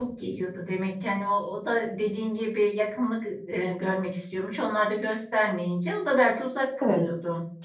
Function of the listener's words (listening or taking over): taking over